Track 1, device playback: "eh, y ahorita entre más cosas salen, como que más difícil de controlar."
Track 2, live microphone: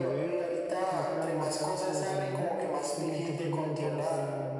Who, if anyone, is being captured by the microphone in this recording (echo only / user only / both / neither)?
both